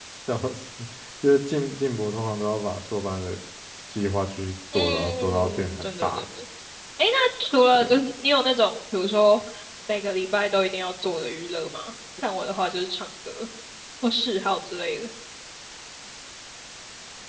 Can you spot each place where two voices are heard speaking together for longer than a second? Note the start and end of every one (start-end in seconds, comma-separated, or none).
4.7-6.2